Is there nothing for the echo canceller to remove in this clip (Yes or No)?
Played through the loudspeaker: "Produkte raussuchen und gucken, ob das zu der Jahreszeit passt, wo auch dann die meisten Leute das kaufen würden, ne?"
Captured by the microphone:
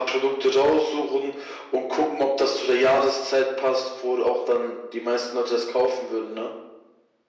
No